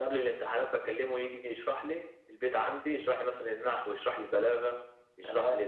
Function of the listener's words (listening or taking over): listening